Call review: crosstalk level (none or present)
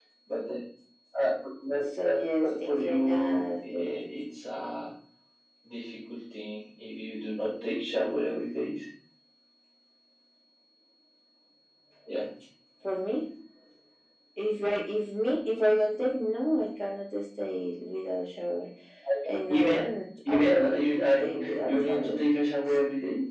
present